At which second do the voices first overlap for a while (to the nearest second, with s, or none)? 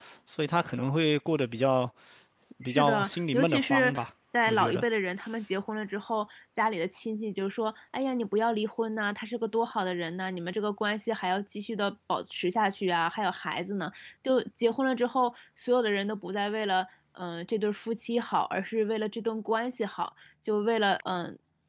3 s